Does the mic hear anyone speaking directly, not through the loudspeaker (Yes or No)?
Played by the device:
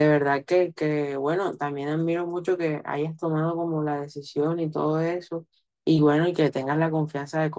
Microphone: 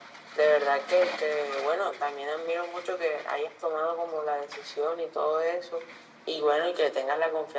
No